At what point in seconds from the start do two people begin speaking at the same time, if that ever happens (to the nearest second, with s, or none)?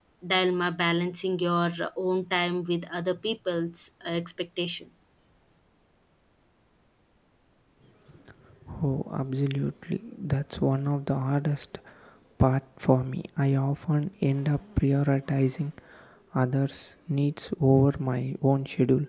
none